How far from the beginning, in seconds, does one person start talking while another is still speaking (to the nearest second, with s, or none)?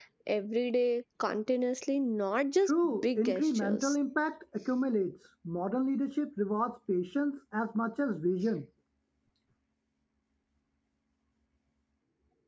3 s